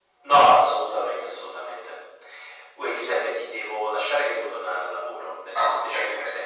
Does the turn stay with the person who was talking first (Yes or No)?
No